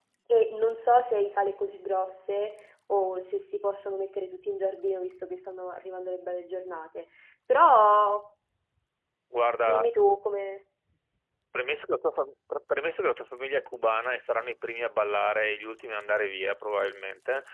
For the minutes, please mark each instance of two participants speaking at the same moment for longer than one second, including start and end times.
none

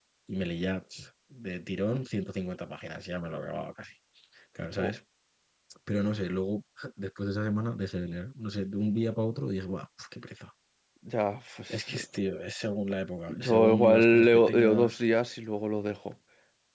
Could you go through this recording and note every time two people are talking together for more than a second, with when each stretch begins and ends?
13.3-15.0

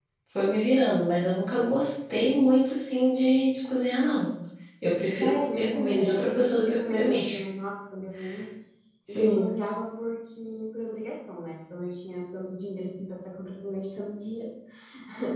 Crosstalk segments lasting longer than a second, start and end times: 5.2-7.2

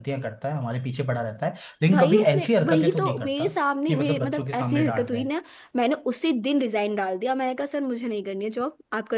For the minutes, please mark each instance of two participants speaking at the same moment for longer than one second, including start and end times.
1.9-3.5, 3.9-5.2

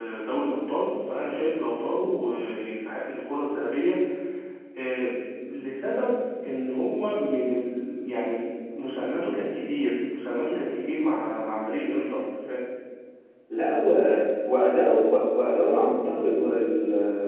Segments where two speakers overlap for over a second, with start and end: none

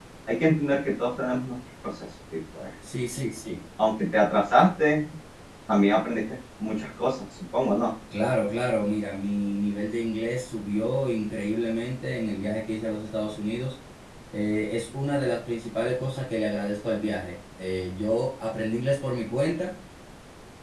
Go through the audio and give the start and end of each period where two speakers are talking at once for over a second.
none

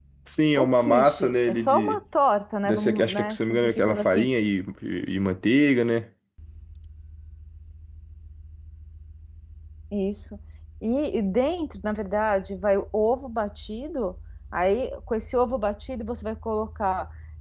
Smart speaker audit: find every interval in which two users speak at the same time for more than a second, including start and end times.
0.6-2.0, 2.6-4.3

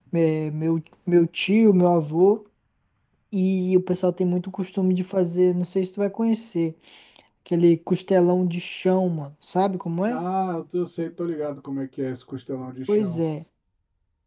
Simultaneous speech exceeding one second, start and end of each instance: none

